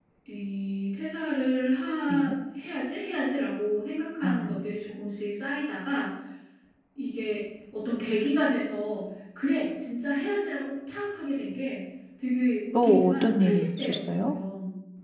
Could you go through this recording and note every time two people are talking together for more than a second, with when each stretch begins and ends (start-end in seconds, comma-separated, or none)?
12.8-14.3